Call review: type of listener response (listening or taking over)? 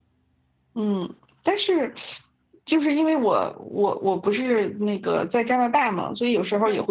listening